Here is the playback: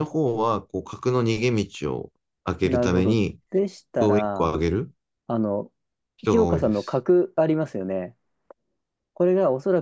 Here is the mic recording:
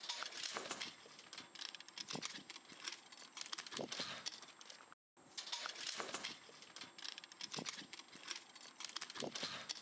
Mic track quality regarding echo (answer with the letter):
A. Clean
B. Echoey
A